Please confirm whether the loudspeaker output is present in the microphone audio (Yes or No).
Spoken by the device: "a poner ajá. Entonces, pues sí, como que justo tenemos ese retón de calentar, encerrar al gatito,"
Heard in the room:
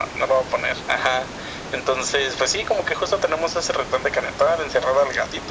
Yes